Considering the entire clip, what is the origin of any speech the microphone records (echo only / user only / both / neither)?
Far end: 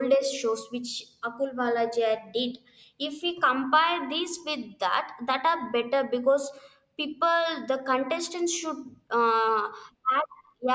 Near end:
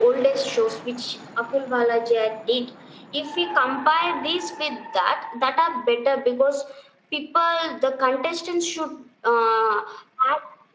echo only